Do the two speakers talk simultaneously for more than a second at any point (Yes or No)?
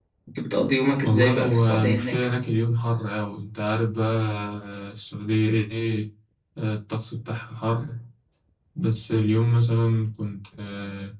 Yes